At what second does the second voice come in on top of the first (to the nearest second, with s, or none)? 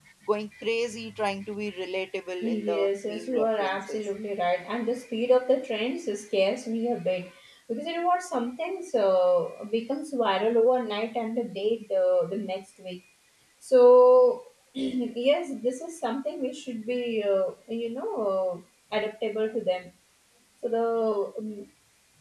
2 s